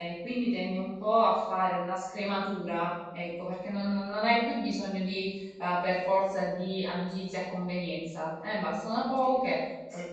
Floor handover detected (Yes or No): No